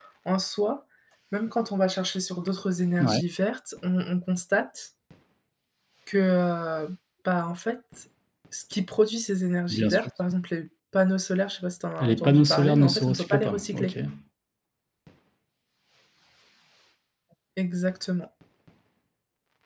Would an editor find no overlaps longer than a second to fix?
No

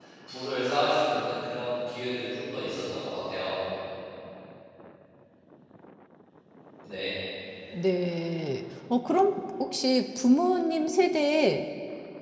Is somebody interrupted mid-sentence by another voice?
No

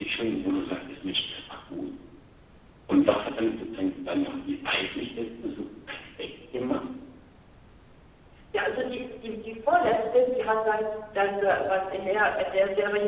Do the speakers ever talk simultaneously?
No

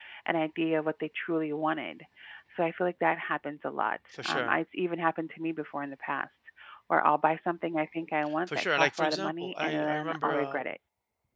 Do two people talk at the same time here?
Yes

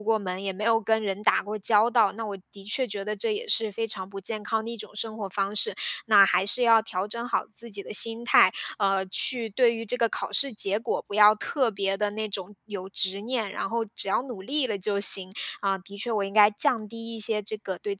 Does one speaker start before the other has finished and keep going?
No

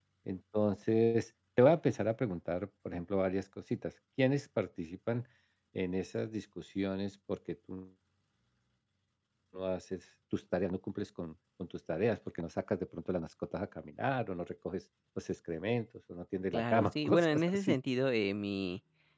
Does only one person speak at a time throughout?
No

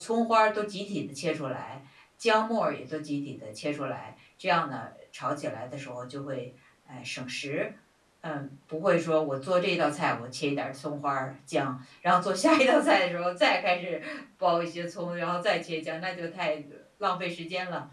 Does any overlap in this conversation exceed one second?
No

